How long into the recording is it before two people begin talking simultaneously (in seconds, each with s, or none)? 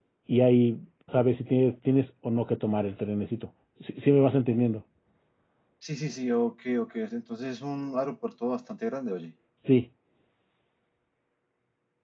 none